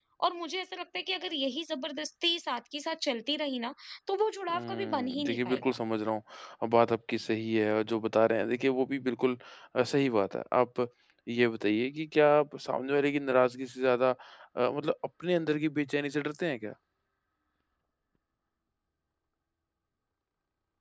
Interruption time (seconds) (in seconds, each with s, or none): 4.5 s